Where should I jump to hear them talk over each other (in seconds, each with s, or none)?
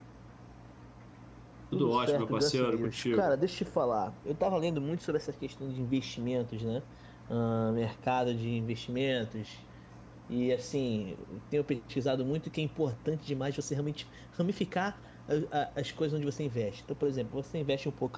1.7 s